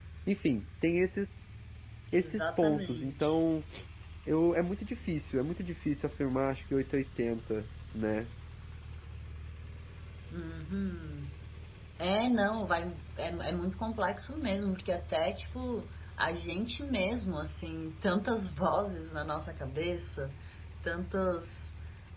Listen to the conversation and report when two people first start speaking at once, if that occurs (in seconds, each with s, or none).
2.1 s